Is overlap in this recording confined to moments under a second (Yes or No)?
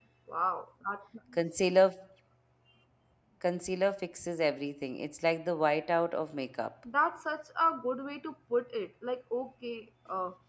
Yes